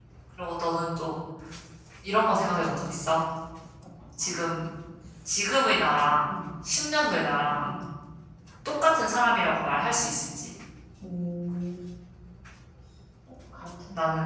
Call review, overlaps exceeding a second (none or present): none